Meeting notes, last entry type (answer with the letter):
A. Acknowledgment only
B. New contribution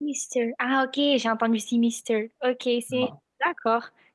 A